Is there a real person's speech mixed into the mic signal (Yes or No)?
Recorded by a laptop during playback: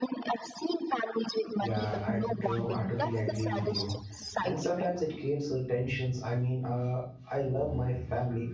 Yes